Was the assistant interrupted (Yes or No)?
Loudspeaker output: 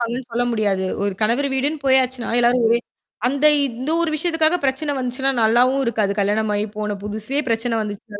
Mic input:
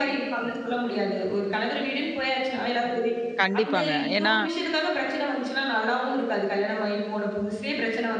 Yes